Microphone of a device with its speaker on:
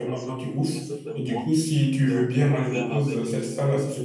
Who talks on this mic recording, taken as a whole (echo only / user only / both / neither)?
both